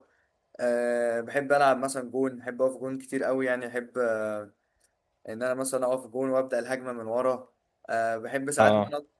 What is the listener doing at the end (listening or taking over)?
listening